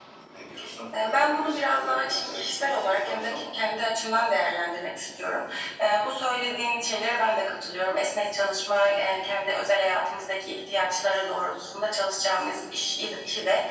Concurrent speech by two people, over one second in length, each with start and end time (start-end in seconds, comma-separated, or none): 1.0-3.4